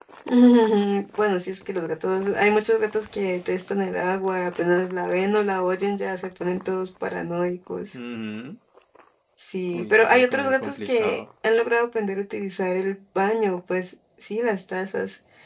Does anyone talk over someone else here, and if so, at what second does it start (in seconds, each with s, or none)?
9.7 s